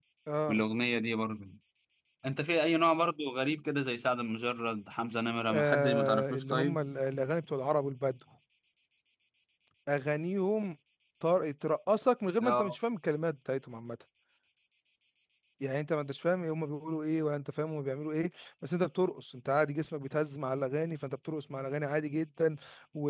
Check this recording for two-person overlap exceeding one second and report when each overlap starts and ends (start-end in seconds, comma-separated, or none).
5.5-6.8